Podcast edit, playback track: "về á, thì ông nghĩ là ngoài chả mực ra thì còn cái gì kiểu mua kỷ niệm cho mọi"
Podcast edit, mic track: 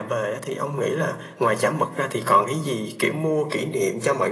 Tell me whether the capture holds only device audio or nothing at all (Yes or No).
Yes